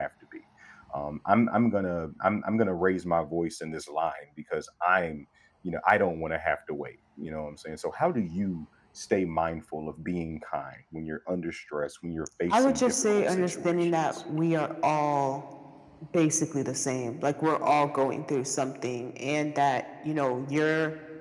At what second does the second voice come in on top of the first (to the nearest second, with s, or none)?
13 s